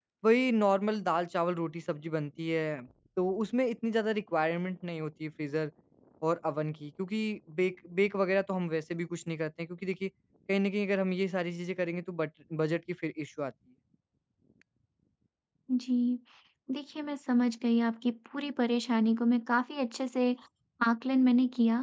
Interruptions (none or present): none